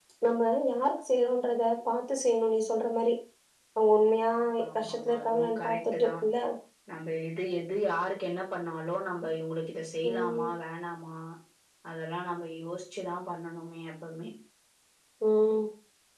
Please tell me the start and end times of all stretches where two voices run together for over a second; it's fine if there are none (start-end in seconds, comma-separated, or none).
4.8-6.1